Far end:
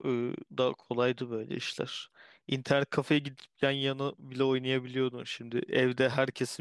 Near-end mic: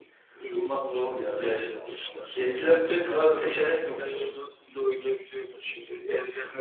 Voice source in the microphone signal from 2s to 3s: both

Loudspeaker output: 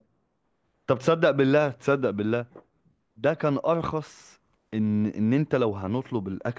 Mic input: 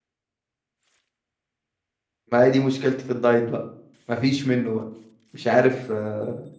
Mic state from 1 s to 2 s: neither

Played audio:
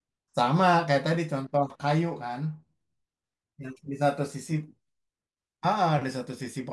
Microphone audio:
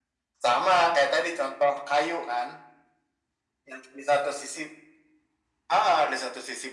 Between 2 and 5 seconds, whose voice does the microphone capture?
echo only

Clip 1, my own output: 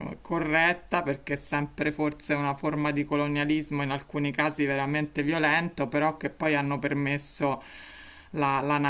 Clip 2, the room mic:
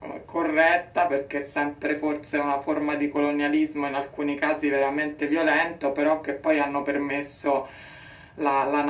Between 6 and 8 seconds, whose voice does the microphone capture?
echo only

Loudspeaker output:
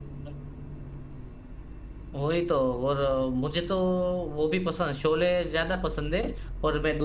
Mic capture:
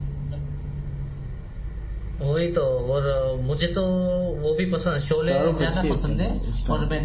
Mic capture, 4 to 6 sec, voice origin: both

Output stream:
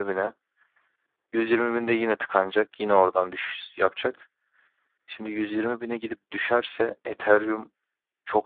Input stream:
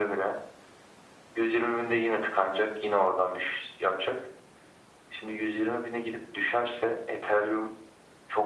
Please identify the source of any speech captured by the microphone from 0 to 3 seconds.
echo only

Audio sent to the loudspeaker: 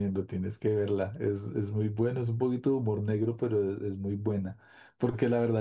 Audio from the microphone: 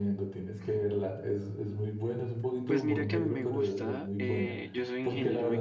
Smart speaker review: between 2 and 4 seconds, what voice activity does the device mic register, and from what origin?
both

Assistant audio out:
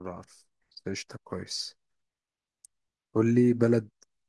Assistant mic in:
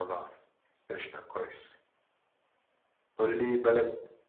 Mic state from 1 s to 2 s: echo only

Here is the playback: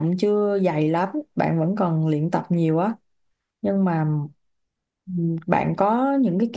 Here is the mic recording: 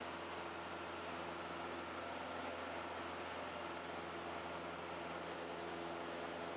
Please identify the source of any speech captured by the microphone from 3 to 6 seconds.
neither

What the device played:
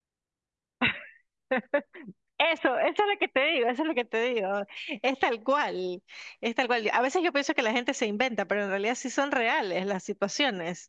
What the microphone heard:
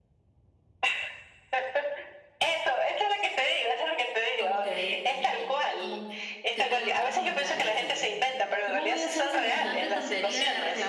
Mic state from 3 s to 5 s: both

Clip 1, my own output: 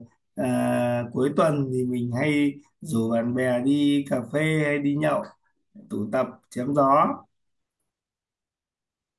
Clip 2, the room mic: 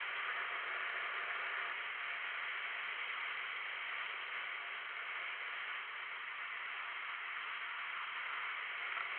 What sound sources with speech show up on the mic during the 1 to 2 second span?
neither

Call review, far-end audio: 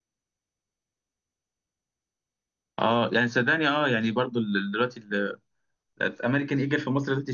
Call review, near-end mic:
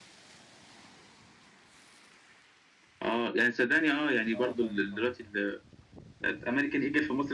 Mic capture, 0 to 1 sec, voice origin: neither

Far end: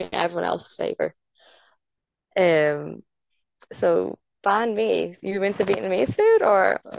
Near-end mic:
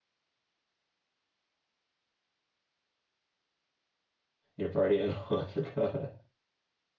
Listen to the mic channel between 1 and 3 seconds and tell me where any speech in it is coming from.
neither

